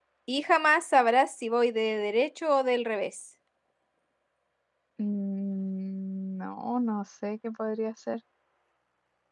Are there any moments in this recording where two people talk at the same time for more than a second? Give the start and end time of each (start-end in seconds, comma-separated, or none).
none